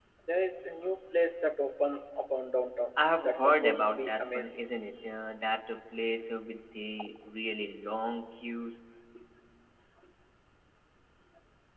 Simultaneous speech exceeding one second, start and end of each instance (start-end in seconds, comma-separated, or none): 3.2-4.6